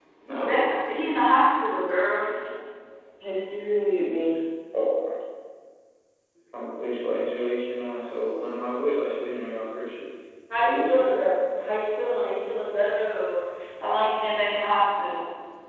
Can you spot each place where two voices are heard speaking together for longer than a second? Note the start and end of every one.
none

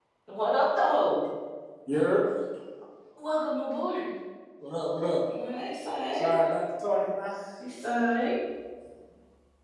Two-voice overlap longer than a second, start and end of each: none

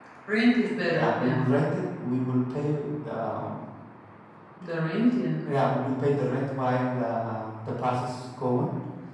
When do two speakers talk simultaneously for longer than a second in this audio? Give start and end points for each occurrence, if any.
none

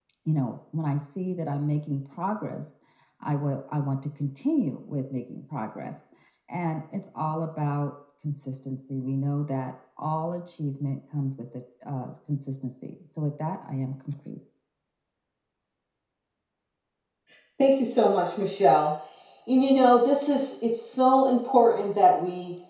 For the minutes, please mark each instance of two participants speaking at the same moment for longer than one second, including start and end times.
none

